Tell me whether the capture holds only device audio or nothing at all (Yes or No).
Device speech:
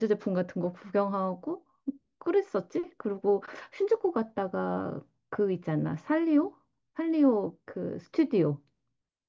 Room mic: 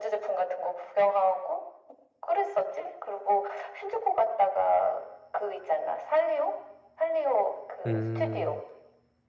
No